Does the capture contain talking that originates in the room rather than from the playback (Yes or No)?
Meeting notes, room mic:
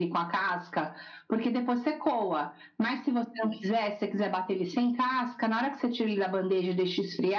No